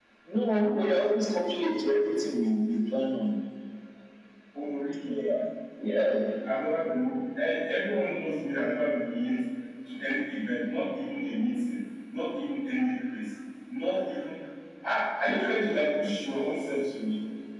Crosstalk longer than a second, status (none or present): none